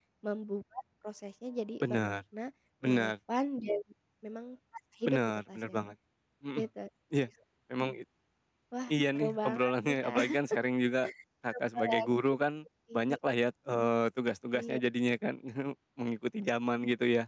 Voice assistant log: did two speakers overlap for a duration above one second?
Yes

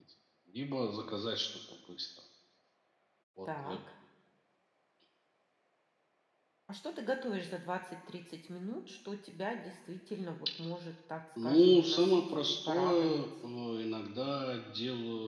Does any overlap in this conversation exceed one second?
Yes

